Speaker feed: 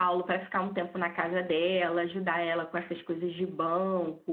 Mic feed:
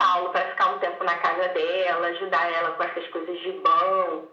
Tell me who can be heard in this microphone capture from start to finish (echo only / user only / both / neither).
echo only